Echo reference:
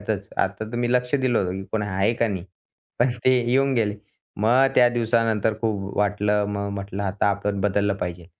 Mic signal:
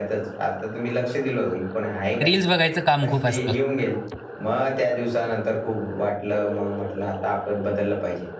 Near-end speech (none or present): present